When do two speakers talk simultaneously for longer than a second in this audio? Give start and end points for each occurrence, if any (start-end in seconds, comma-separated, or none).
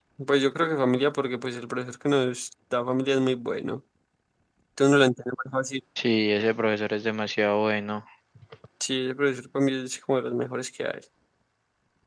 none